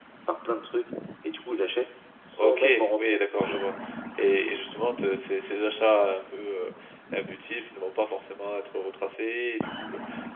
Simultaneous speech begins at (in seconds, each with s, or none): 2.3 s